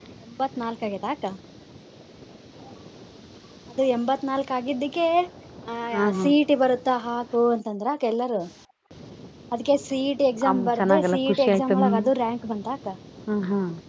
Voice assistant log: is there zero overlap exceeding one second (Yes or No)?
No